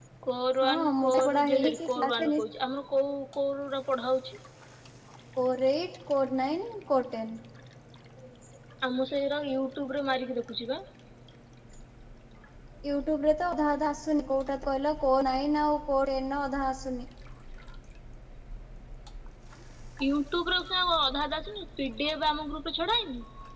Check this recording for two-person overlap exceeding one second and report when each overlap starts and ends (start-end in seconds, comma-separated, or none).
0.6-2.4